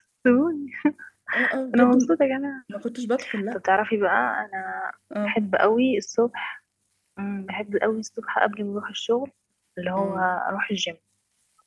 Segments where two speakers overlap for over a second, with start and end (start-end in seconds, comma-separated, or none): none